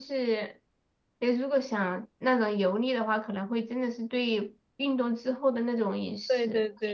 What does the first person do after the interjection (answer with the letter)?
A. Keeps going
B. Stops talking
B